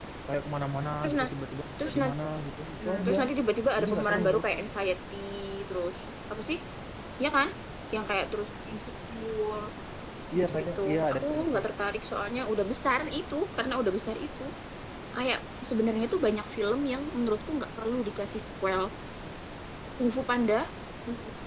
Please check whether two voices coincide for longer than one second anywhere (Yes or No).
Yes